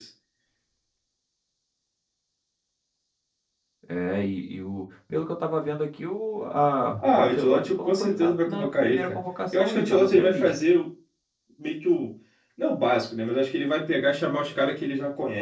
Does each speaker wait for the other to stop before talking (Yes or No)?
No